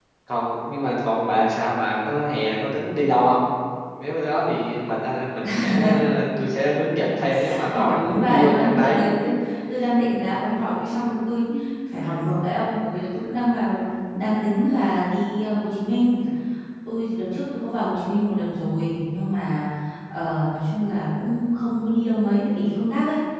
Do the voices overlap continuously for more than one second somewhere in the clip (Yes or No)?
Yes